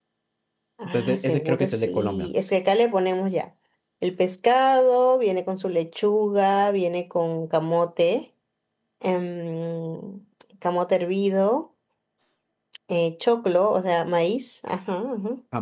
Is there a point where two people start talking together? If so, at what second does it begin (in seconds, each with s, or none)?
0.8 s